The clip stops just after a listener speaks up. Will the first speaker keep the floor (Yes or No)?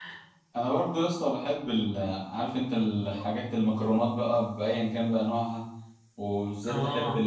Yes